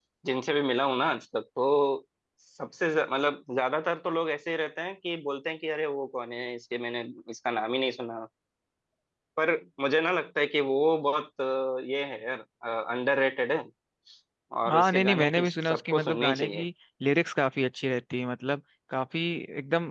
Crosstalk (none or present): present